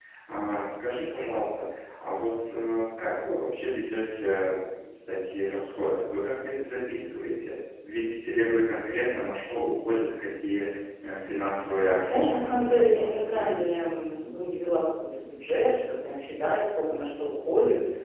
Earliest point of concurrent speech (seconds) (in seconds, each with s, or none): 12.0 s